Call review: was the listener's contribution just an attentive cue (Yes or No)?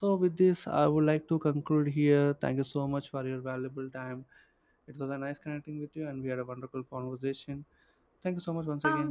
No